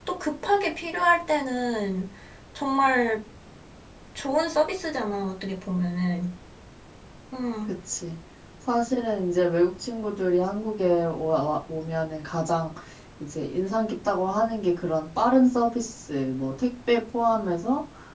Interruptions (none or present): none